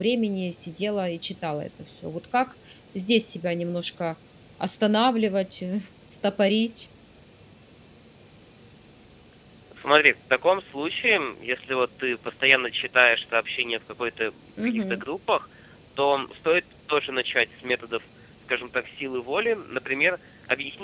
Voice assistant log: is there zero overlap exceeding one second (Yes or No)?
Yes